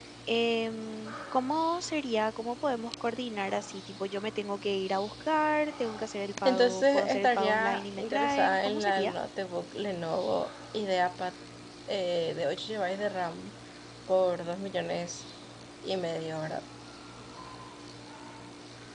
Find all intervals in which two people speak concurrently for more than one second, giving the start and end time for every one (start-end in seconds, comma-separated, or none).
6.5-9.1